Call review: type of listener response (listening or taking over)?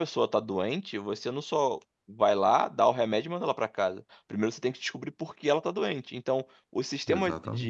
listening